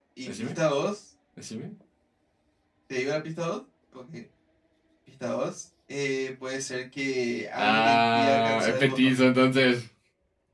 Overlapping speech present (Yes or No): Yes